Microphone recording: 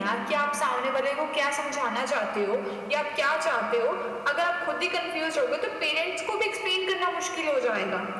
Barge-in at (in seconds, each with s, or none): none